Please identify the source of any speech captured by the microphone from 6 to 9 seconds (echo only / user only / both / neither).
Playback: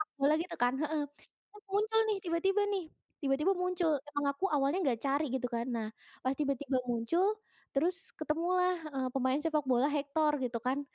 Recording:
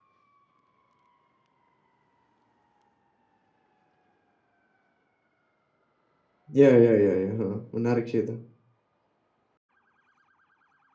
user only